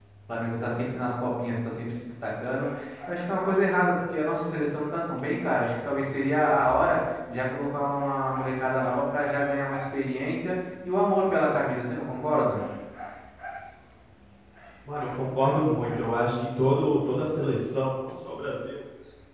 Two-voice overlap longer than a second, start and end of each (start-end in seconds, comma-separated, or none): none